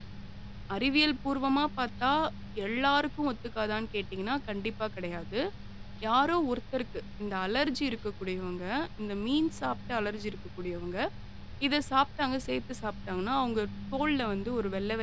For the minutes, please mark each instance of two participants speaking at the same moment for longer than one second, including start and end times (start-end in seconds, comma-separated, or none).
none